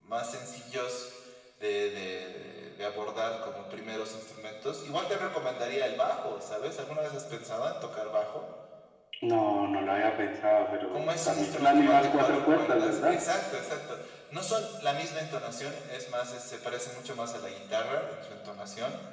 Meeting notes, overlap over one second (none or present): present